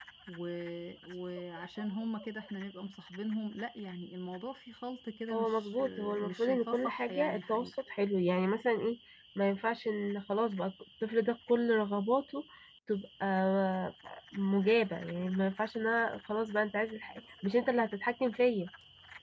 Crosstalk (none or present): present